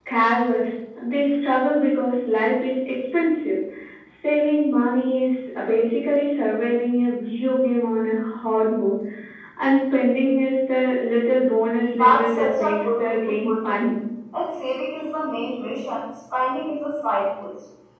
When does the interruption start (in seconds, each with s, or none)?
11.8 s